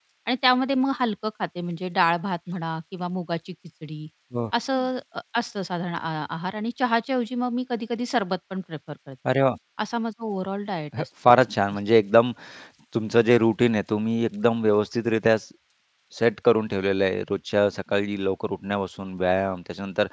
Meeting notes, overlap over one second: none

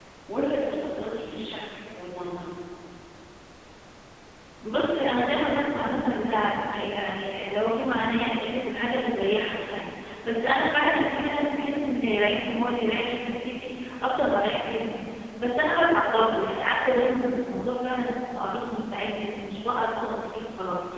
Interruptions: none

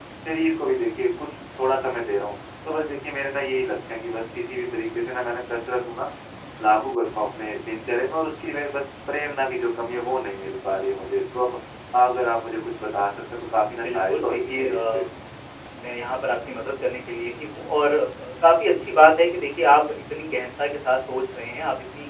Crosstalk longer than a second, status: present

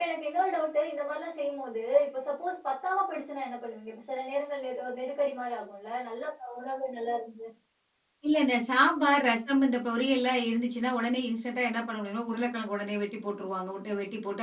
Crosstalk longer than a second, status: none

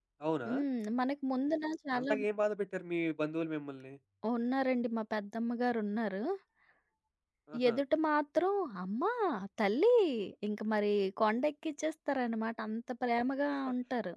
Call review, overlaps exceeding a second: none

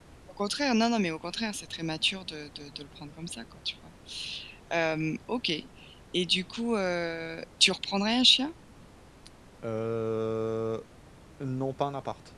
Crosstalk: none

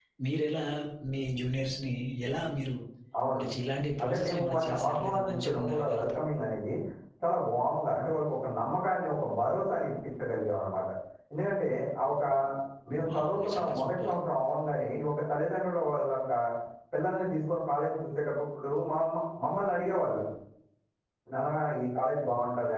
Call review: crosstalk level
present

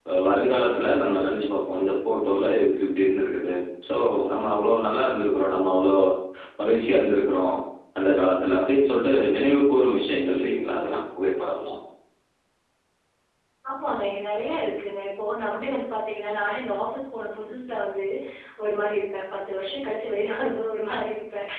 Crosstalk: none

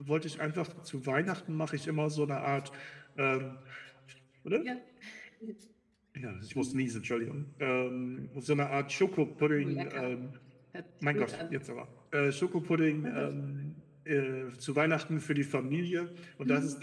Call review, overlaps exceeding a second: none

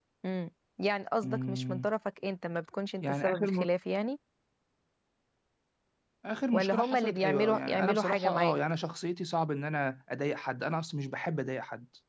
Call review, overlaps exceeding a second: present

